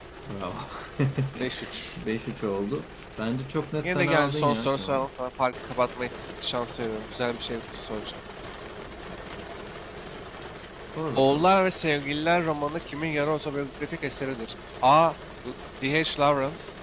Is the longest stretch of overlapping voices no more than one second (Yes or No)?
No